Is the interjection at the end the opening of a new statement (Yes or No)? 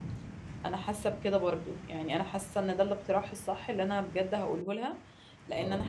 No